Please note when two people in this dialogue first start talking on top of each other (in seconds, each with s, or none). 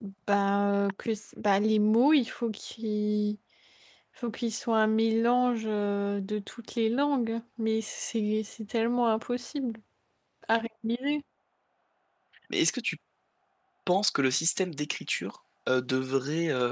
none